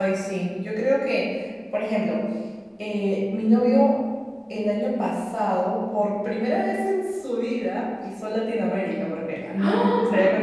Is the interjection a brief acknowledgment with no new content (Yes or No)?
Yes